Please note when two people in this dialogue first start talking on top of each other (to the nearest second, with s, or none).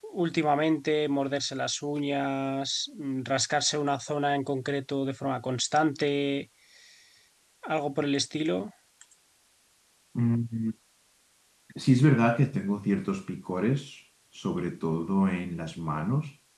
none